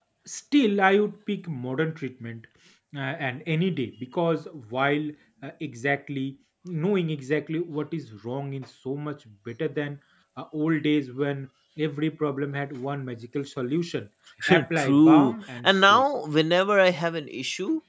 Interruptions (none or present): present